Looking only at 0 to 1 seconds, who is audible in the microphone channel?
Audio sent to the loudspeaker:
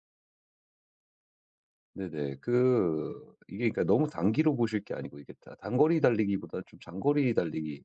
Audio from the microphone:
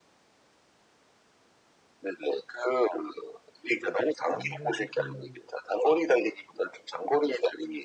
neither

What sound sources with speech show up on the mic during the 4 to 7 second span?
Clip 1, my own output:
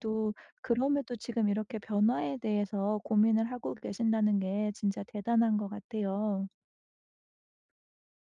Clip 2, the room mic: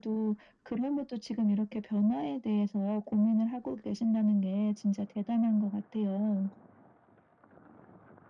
echo only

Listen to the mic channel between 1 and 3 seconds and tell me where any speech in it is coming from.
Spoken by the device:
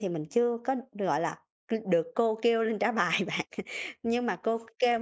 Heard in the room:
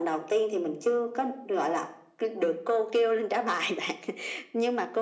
echo only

